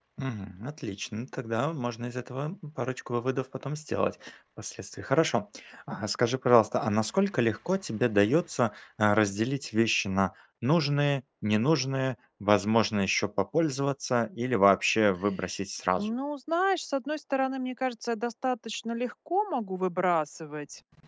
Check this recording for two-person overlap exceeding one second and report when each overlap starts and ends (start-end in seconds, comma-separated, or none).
none